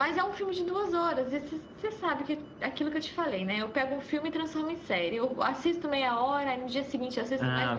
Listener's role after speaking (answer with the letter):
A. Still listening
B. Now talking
B